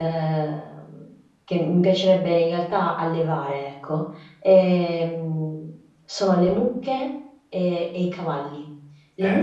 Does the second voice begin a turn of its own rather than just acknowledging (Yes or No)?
No